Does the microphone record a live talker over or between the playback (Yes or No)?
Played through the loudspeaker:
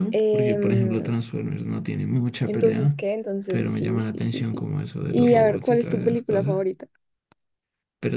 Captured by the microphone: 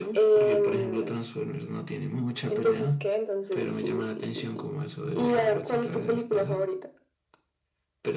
No